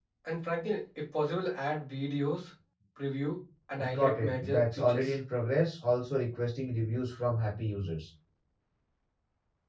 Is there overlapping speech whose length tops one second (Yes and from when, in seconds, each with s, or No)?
Yes, from 3.8 s